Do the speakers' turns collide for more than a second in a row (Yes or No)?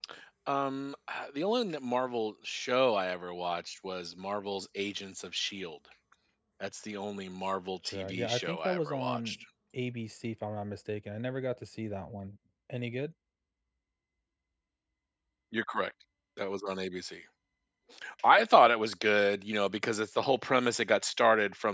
Yes